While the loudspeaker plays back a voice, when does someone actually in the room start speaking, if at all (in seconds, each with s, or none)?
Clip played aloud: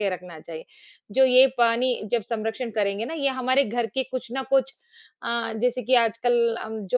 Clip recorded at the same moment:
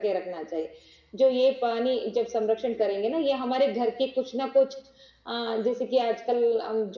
none